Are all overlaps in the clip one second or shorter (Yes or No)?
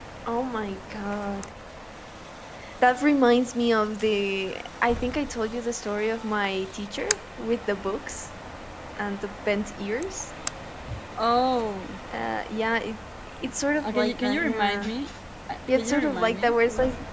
No